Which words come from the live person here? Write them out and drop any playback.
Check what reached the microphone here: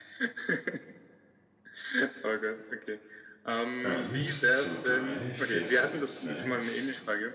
Eins, zwei, drei, vier, fünf, sechs,

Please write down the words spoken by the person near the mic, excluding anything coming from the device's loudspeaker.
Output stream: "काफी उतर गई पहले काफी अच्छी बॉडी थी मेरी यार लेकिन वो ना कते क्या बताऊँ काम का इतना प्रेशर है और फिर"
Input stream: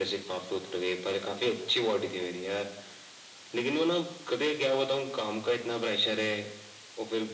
none

